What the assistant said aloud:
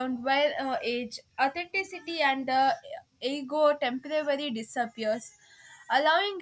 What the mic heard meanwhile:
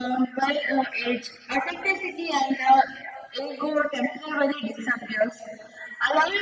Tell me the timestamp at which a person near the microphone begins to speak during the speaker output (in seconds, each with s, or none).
none